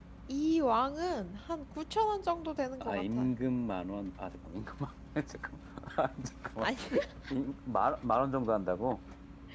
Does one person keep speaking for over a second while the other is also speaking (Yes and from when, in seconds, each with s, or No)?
No